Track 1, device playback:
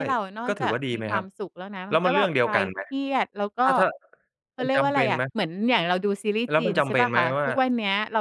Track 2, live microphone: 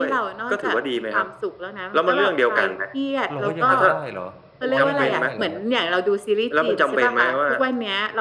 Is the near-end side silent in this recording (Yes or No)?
No